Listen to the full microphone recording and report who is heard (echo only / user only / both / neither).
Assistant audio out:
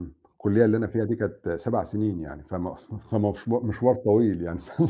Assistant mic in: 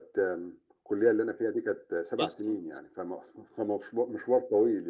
both